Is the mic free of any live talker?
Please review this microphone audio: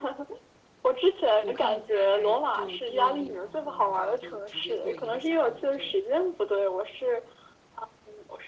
No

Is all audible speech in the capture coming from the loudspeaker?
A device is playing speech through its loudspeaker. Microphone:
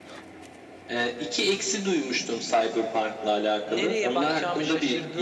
No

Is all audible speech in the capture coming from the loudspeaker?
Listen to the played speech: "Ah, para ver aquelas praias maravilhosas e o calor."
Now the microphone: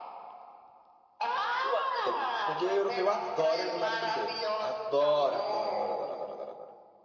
No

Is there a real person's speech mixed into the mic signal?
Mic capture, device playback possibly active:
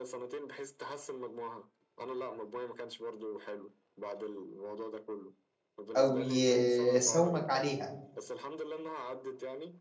Yes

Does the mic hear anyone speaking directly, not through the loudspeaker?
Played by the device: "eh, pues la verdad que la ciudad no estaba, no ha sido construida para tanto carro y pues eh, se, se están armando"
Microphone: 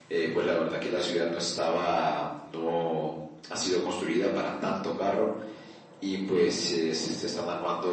No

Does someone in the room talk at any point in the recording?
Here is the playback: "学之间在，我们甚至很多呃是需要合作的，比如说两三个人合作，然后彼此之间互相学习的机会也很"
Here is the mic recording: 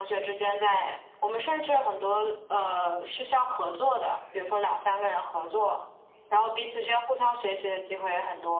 No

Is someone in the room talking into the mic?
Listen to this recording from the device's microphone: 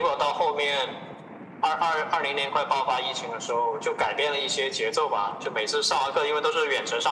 No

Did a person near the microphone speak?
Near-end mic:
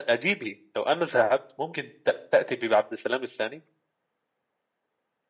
No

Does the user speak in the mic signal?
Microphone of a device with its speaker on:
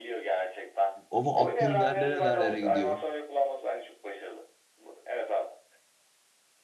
Yes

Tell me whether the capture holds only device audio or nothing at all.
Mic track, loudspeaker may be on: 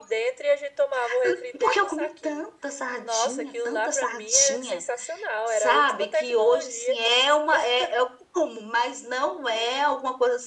Yes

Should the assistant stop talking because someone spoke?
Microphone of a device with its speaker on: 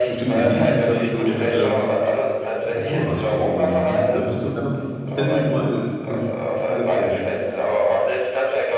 Yes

